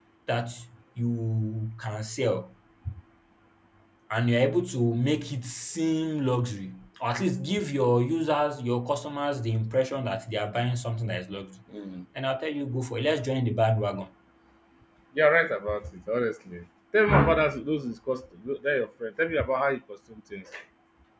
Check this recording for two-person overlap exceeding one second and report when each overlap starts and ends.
none

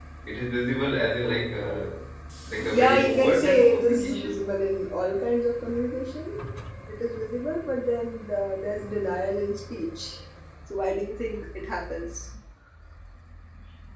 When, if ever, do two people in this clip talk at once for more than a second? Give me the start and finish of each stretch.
2.6-4.5

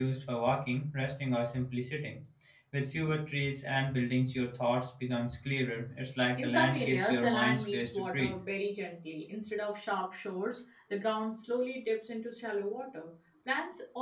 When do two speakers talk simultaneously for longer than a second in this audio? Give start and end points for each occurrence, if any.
6.4-8.3

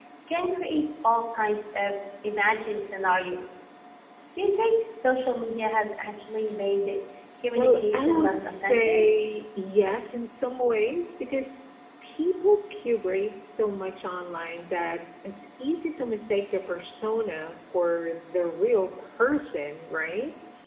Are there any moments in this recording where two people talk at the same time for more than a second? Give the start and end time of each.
7.6-9.0

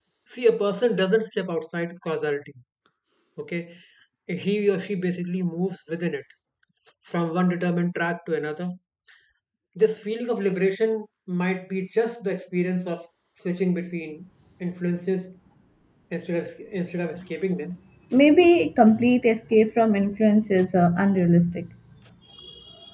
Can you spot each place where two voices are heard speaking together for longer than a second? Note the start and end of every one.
none

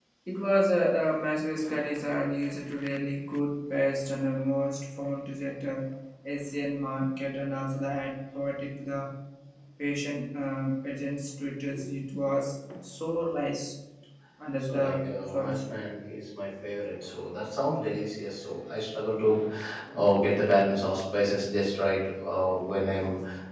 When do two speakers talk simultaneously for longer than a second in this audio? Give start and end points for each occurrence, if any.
14.6-15.8

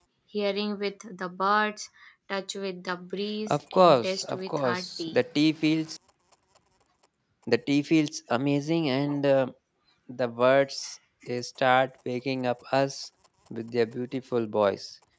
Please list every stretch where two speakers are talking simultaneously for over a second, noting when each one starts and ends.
3.5-5.2

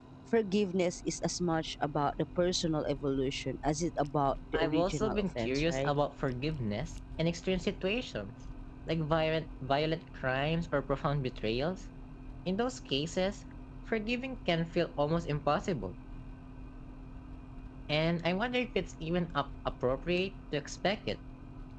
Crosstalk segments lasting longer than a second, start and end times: 4.5-5.9

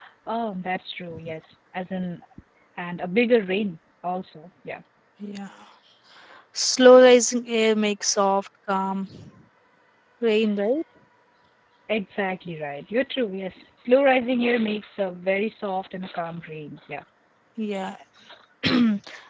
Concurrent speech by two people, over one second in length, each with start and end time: none

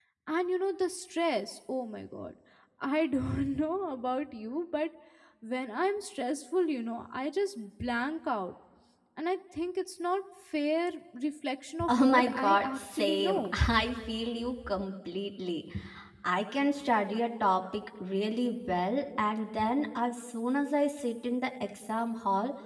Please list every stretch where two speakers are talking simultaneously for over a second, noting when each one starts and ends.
11.9-13.5

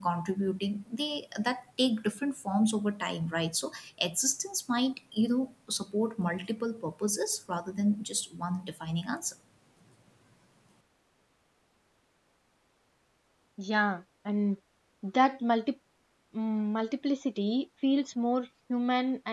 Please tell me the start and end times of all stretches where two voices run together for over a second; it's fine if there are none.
none

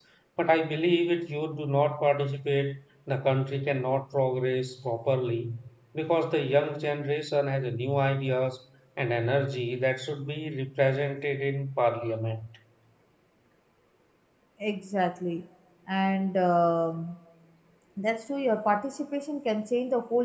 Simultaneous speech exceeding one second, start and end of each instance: none

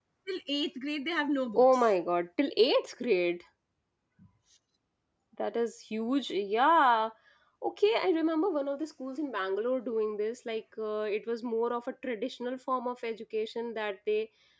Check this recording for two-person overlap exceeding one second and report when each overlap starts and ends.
none

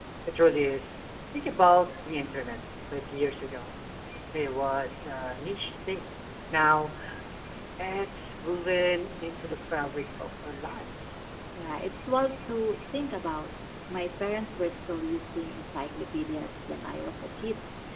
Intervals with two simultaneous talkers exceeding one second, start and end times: none

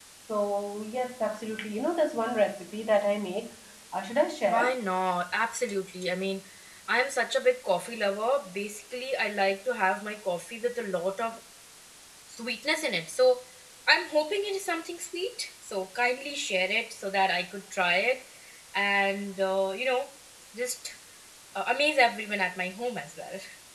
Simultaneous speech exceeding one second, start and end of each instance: none

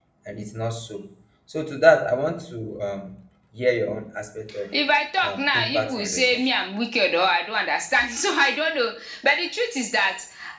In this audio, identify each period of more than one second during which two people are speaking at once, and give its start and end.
5.2-6.5

